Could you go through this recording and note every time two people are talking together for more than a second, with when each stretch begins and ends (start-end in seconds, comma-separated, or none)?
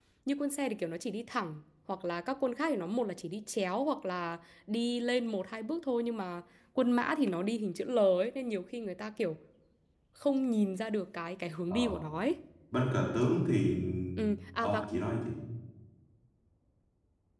none